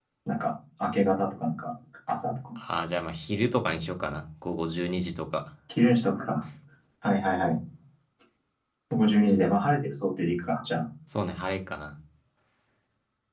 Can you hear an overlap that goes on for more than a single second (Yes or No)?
No